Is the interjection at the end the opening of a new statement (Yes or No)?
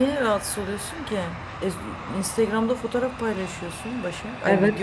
Yes